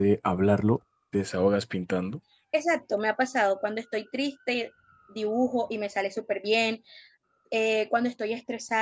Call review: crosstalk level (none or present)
none